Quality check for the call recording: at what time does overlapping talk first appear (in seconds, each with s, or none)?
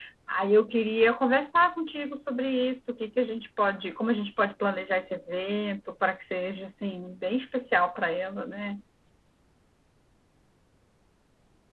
none